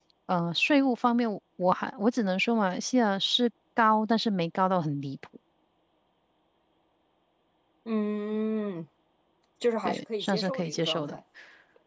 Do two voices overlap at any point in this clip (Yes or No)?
Yes